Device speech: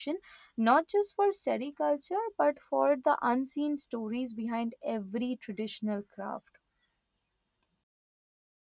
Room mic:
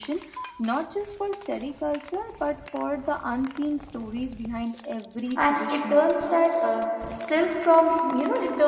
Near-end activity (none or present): present